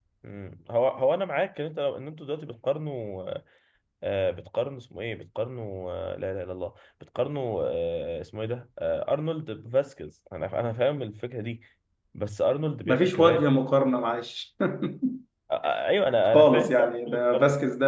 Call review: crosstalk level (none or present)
present